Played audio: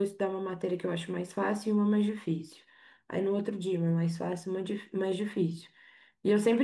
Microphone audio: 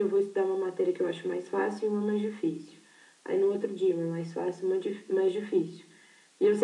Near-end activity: none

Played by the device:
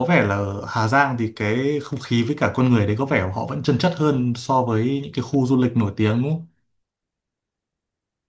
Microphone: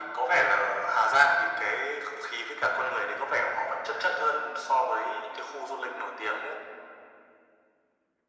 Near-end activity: none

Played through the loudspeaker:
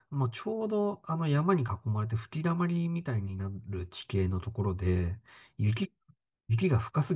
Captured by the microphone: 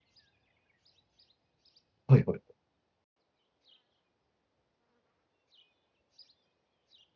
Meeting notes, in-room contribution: present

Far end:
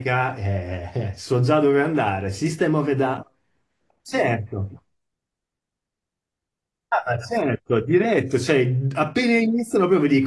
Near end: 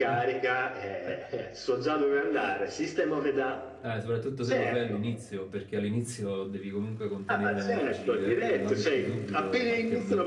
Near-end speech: present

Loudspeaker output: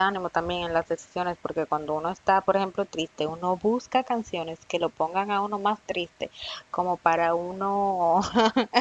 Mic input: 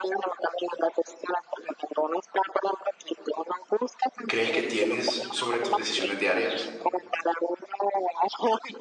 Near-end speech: present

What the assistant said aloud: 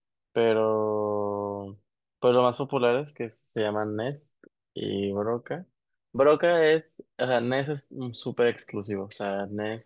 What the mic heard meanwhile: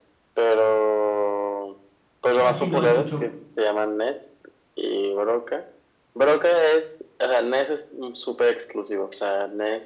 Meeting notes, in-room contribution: present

